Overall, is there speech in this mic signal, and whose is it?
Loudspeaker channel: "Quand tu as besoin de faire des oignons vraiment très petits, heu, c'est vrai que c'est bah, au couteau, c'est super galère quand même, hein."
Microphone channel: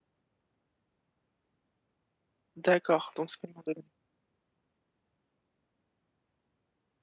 user only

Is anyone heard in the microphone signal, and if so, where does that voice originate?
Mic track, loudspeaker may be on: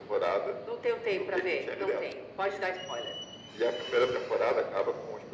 echo only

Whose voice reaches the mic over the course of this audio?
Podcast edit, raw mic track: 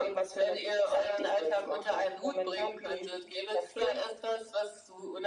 echo only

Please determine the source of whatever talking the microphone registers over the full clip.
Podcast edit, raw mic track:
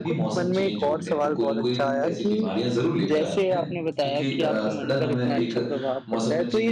both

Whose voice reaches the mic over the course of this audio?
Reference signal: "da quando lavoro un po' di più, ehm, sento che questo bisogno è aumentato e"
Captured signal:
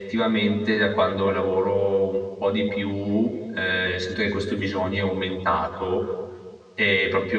echo only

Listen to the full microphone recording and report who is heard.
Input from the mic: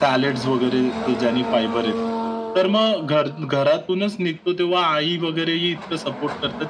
echo only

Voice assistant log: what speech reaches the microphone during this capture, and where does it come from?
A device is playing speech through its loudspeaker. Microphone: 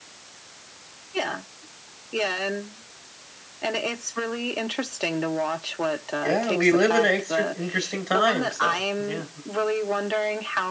both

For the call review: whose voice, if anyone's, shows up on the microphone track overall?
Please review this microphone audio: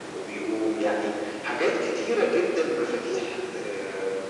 echo only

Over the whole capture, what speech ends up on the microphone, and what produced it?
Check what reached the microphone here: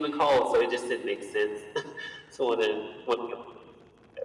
echo only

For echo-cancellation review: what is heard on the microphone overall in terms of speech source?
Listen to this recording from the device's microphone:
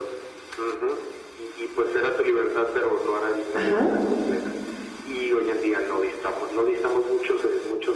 both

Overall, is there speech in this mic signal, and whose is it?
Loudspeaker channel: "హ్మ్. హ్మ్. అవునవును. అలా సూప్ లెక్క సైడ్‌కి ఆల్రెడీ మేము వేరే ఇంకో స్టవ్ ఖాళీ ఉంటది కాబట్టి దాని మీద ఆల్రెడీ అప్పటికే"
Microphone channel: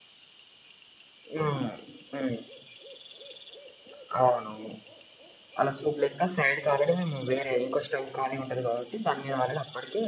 echo only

